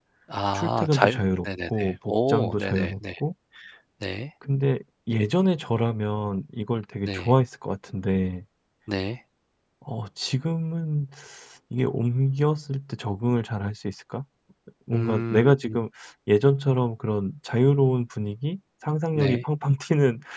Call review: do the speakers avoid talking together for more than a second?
No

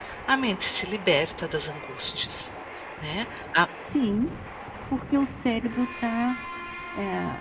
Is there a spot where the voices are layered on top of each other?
No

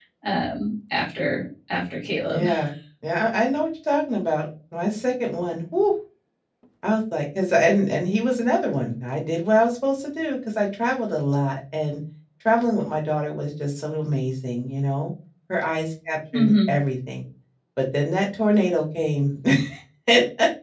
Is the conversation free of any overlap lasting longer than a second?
Yes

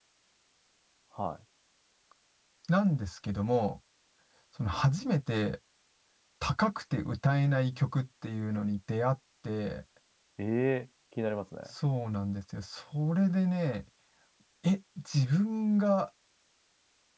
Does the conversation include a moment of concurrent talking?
No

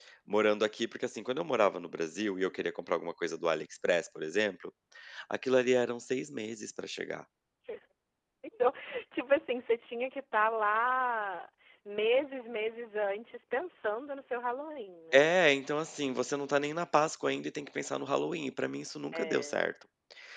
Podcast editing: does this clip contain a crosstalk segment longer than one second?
No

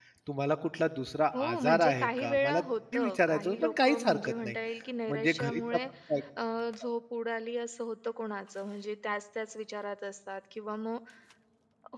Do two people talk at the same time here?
Yes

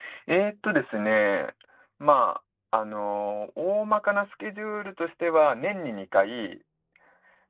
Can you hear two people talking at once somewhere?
No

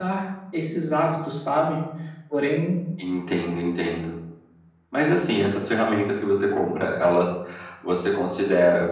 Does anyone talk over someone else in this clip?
No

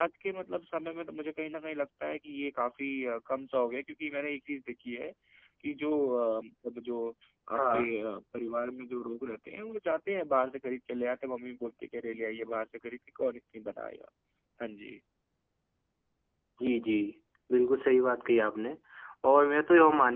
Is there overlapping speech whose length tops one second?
No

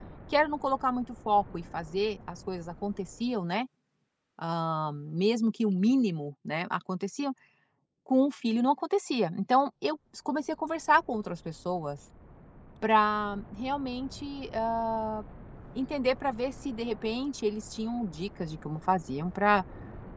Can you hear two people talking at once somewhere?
No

